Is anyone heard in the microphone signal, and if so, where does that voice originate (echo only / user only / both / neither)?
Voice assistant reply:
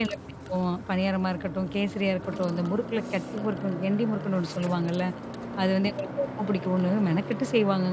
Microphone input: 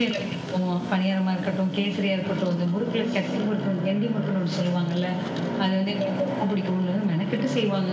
echo only